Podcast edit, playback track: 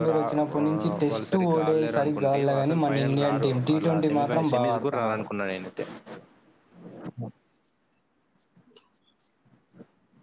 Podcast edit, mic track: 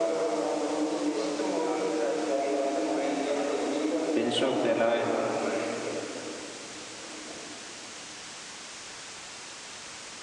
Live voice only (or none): బెన్ స్టోక్స్ ఎలా